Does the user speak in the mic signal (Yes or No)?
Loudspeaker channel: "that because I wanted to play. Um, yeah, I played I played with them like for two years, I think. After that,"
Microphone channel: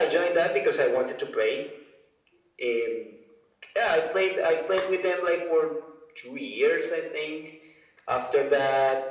No